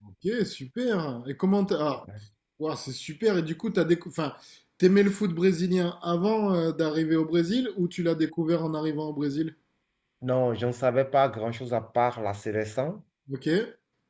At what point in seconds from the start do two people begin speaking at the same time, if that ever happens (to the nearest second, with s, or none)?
none